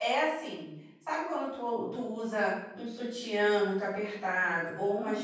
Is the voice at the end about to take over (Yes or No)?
No